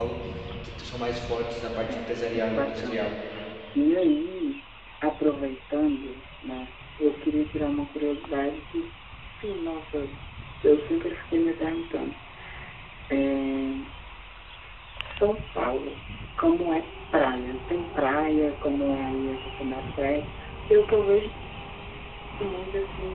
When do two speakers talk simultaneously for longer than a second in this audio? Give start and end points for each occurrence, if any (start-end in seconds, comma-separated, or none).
1.9-3.1